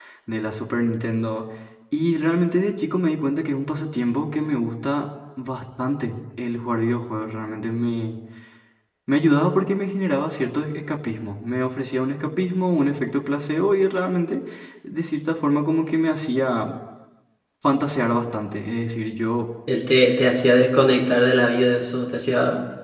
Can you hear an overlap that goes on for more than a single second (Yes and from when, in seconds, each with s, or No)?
No